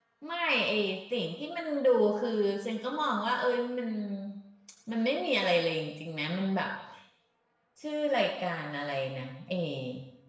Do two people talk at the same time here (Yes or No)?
No